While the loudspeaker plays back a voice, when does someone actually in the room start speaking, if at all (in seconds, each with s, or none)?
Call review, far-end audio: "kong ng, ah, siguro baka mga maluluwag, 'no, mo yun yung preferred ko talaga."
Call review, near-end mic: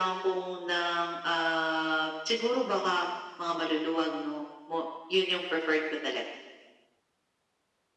none